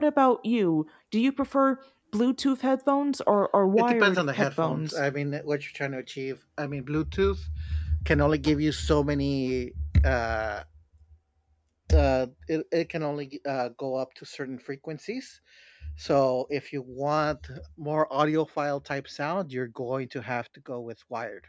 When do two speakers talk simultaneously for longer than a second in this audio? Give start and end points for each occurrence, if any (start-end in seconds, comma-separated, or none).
3.8-5.0